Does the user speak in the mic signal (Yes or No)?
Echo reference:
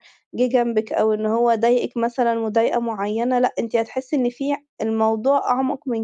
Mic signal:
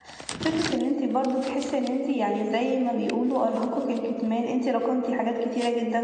Yes